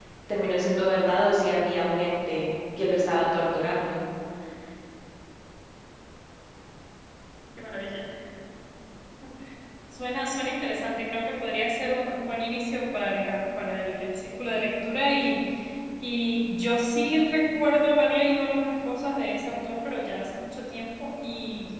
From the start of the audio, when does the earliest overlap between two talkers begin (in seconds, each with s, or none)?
none